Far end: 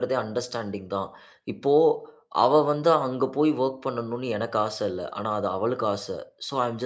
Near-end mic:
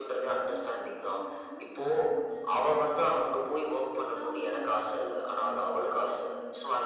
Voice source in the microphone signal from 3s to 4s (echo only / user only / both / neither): both